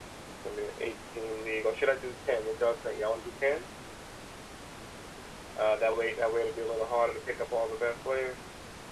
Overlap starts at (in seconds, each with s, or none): none